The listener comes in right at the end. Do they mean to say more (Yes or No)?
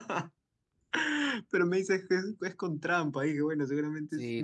Yes